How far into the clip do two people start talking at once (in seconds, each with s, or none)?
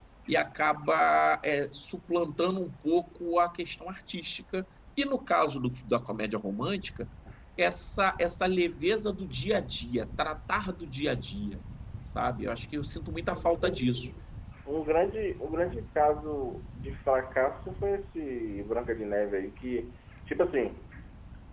none